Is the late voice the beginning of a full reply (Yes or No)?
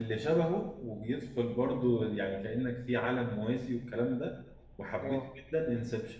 No